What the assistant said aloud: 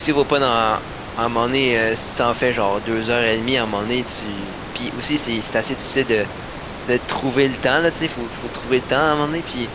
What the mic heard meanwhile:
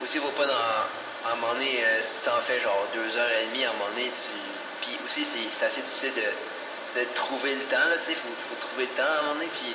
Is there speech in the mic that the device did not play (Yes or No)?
No